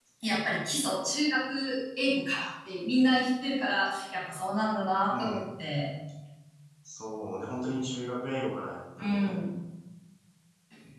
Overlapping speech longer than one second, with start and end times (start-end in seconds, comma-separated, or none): none